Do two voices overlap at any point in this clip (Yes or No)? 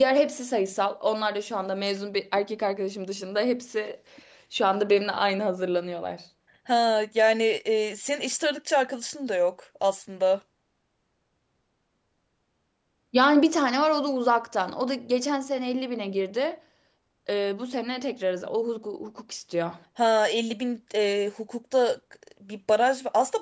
No